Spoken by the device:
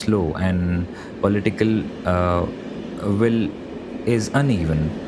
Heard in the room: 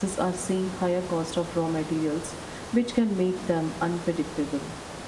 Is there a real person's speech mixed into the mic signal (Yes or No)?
Yes